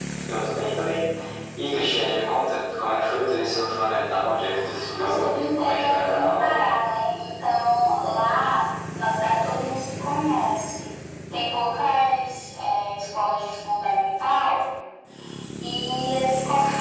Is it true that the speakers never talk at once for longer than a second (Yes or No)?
No